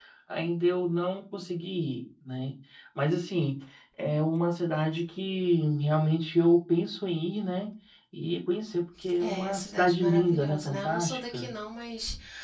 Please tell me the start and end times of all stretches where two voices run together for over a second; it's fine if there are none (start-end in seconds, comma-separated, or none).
9.2-11.5